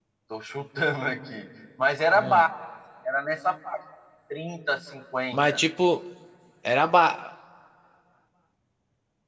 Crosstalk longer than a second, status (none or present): none